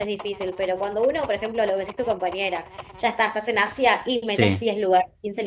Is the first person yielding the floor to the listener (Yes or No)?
No